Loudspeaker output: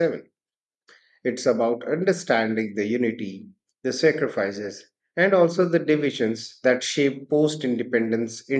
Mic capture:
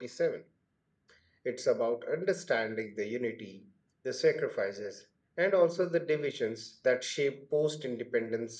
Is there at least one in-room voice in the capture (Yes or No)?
No